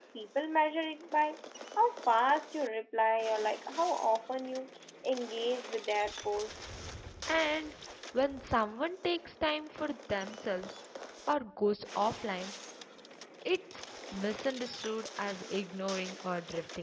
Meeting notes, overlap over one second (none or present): none